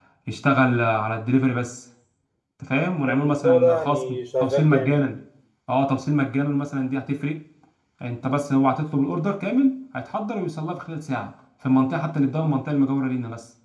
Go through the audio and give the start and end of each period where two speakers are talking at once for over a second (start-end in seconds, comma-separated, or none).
3.1-5.0